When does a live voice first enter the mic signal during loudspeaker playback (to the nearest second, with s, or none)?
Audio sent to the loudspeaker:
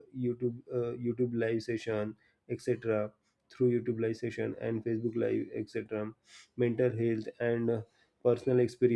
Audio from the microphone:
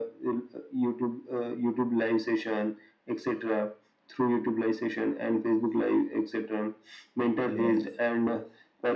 7 s